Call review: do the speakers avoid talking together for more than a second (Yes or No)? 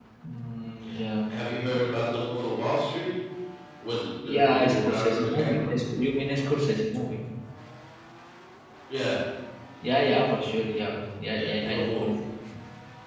No